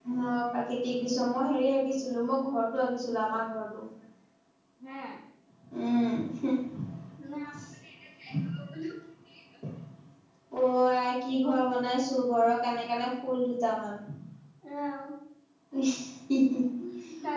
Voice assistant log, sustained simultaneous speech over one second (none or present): none